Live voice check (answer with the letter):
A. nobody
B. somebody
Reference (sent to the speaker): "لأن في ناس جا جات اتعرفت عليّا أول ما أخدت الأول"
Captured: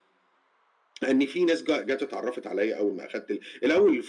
A